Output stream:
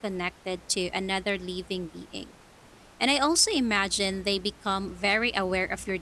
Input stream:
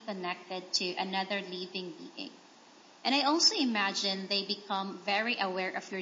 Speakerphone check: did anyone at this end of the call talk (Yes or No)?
No